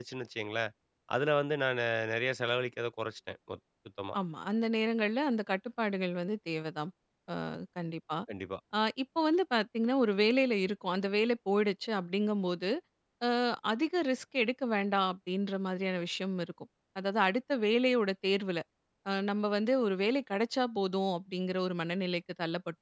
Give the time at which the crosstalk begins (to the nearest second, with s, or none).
none